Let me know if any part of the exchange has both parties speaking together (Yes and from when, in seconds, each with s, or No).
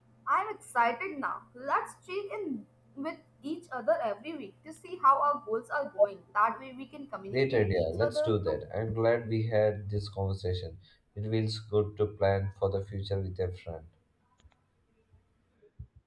Yes, from 7.3 s